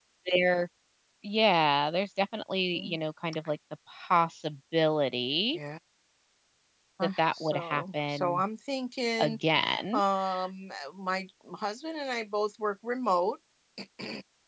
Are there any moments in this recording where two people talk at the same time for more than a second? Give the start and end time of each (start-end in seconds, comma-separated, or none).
7.0-8.4